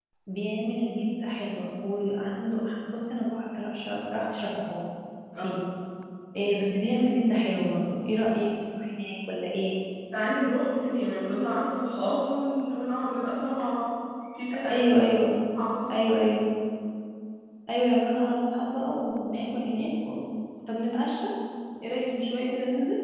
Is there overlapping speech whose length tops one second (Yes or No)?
No